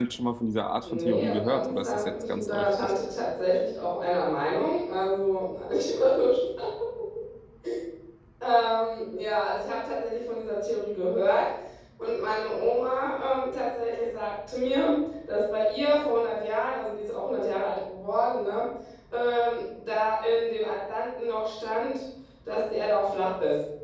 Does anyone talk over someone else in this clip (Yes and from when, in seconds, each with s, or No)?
Yes, from 0.8 s